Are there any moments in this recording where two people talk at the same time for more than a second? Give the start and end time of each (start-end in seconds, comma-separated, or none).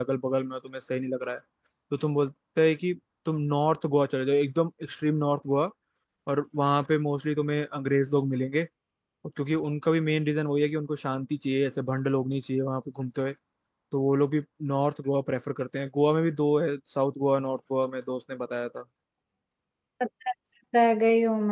none